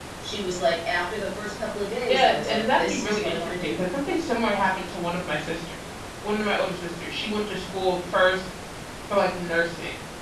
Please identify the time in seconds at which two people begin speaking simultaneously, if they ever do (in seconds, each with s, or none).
2.1 s